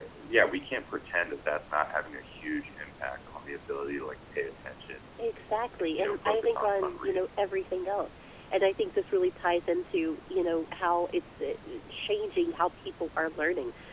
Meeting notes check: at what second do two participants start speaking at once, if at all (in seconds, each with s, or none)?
6.0 s